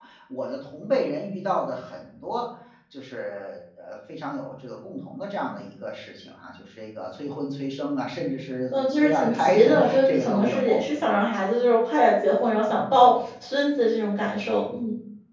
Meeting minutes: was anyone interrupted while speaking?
Yes, from 8.7 s

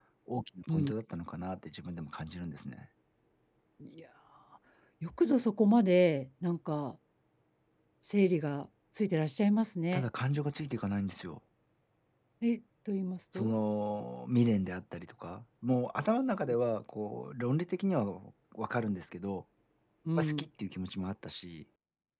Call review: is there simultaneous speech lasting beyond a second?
No

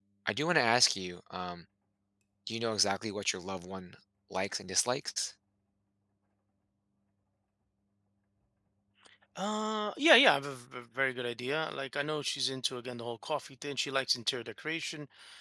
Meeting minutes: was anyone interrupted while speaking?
No

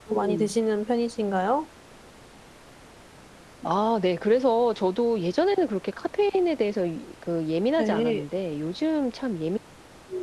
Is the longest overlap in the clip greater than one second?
No

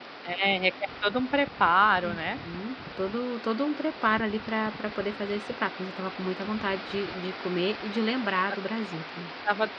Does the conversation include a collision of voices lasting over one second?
No

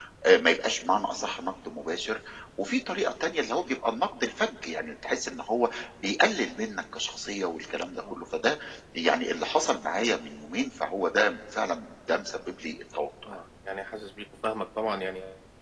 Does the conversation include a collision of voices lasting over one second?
No

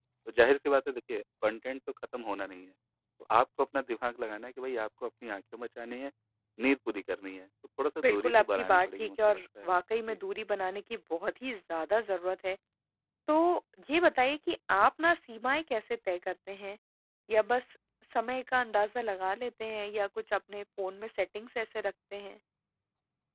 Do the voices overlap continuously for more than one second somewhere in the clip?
Yes, from 8.0 s

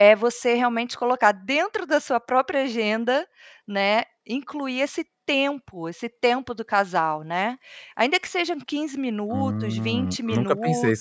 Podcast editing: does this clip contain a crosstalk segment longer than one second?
Yes, from 9.3 s

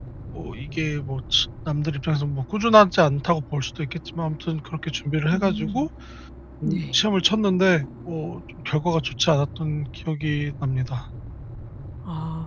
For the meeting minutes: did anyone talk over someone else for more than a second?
No

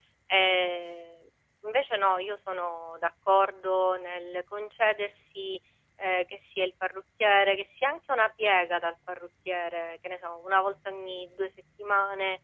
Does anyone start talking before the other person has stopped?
No

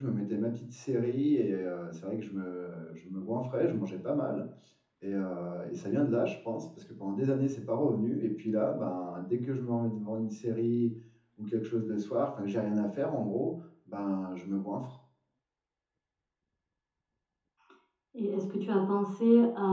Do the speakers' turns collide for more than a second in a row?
No

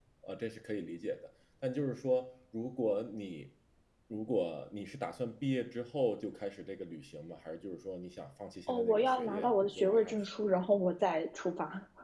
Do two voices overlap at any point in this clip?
Yes, from 8.7 s

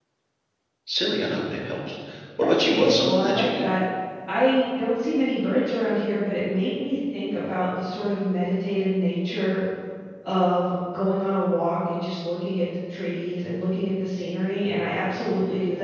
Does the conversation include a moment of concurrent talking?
Yes, from 2.4 s

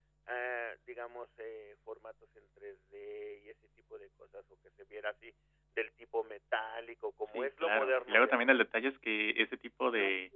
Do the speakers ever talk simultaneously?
Yes, from 7.3 s

